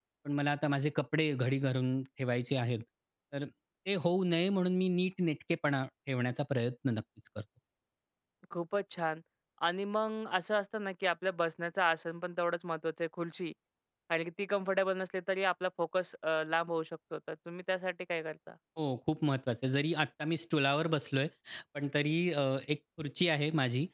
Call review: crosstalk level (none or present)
none